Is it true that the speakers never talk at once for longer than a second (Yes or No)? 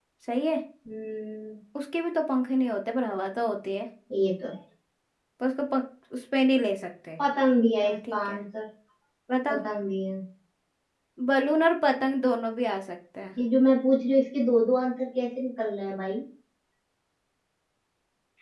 Yes